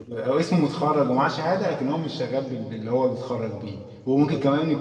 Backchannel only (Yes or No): Yes